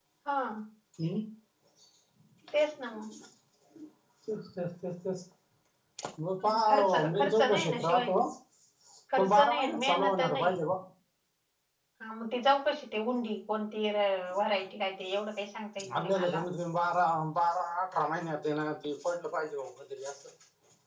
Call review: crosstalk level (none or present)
present